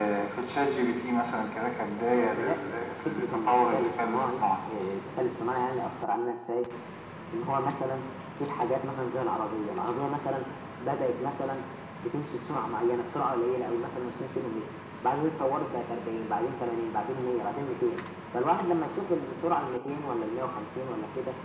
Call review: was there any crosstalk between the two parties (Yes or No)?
Yes